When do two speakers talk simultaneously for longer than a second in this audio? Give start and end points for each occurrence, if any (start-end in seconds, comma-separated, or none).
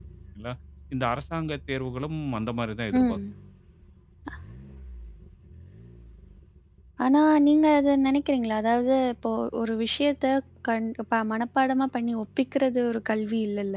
none